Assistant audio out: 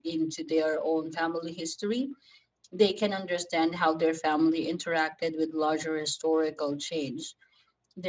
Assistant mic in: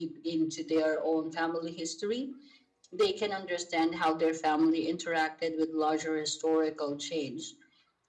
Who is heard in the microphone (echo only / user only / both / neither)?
echo only